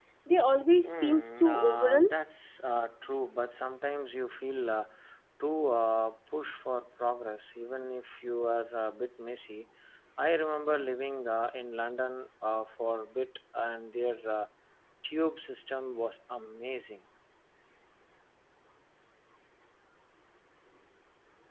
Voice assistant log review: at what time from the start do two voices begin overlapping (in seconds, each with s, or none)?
0.8 s